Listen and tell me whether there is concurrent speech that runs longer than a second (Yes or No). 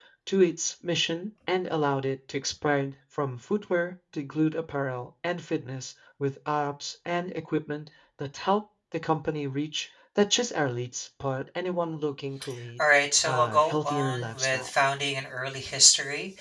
Yes